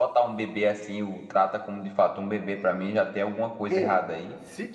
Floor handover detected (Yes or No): Yes